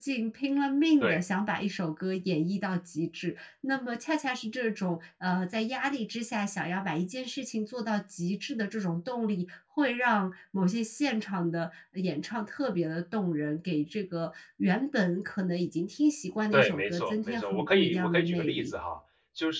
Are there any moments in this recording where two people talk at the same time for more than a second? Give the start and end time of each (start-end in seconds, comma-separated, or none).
16.5-18.7